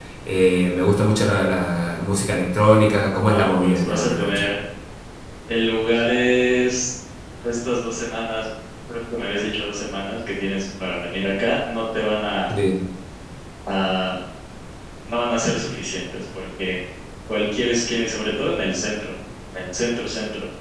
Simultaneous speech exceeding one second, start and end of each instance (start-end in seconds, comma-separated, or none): 3.3-4.5